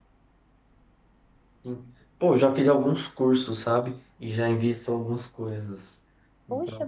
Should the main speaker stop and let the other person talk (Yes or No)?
Yes